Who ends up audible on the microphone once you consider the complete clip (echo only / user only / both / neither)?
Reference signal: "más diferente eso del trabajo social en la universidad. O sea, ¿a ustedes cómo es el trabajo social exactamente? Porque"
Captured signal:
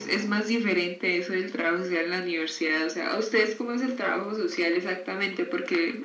echo only